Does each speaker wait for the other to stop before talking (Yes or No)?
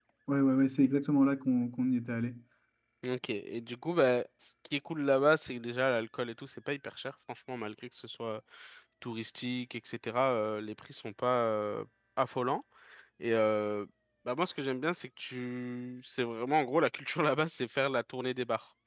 Yes